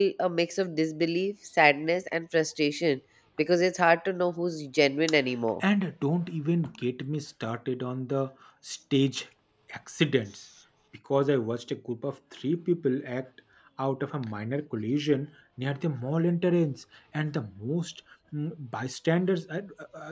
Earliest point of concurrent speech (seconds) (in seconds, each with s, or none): none